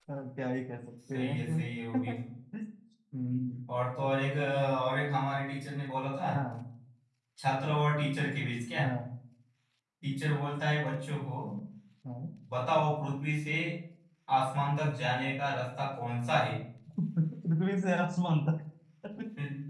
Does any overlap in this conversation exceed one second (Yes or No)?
No